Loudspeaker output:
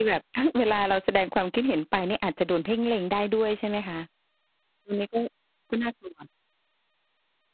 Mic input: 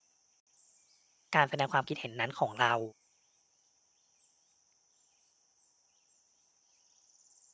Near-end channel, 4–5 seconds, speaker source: neither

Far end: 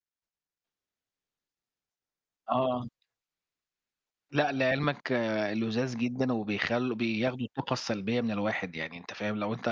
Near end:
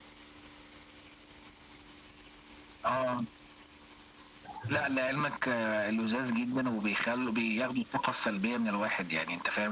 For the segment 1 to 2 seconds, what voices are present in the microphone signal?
neither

